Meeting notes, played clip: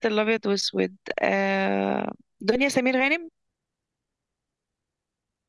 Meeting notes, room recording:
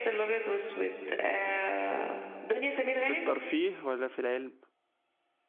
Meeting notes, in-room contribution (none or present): present